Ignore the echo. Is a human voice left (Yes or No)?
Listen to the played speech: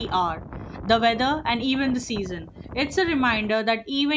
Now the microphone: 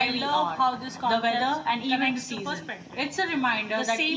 Yes